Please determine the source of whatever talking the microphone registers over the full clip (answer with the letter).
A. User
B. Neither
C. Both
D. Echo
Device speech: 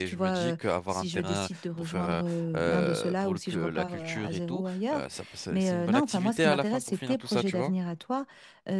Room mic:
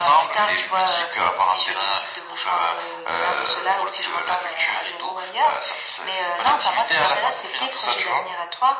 D